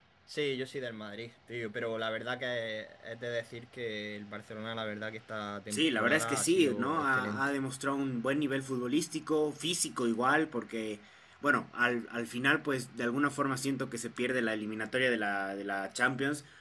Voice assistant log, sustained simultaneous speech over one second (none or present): present